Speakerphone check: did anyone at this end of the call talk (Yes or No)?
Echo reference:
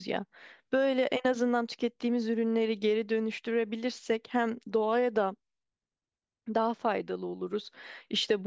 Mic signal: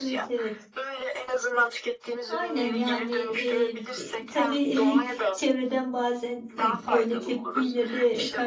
Yes